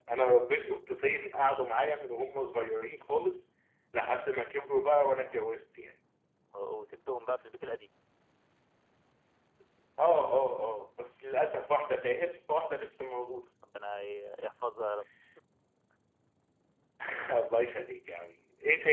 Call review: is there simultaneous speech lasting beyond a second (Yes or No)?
No